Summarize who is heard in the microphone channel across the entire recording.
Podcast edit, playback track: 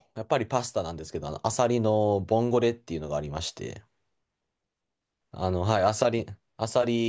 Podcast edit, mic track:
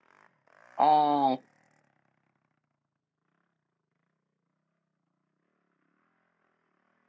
user only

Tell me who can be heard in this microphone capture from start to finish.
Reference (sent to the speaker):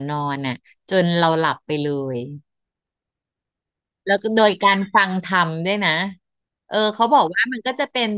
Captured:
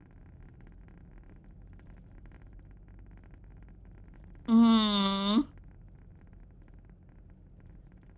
user only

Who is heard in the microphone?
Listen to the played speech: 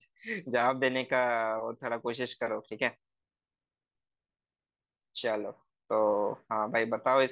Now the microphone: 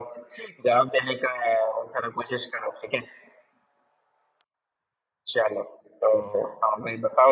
echo only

